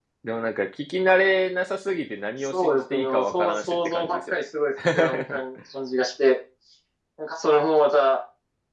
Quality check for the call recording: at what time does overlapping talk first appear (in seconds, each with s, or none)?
2.4 s